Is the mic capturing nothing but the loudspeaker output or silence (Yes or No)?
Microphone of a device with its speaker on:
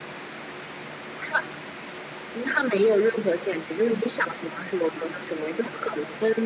Yes